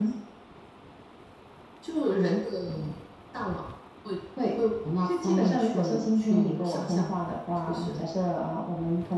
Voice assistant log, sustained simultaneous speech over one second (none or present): present